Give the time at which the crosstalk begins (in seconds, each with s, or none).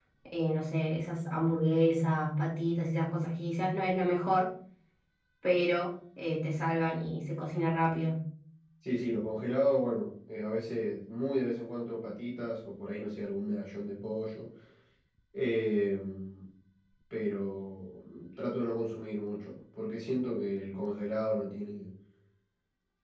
none